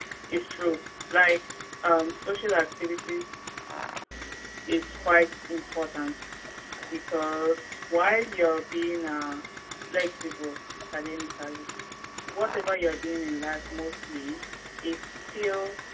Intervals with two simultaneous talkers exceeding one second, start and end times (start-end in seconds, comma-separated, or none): none